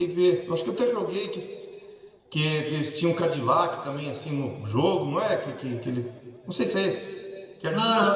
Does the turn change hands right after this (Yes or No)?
Yes